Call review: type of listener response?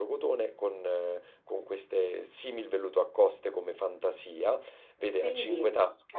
listening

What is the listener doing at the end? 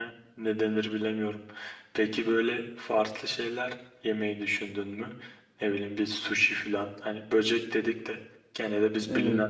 listening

